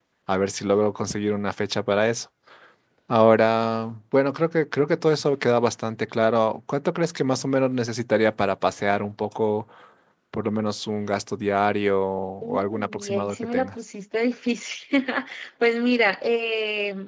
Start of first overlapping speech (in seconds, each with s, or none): 12.4 s